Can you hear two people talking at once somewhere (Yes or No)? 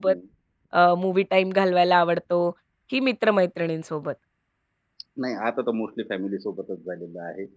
No